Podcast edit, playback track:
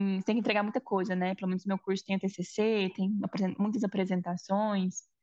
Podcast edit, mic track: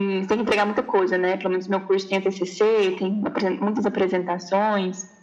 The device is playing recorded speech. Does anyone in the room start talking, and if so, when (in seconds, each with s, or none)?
none